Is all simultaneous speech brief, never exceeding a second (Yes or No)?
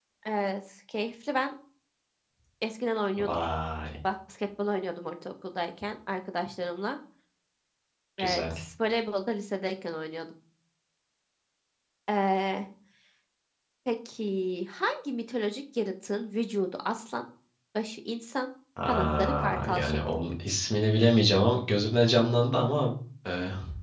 No